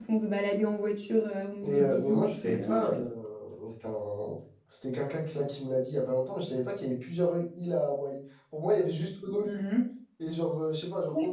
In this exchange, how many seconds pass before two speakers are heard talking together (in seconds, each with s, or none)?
1.6 s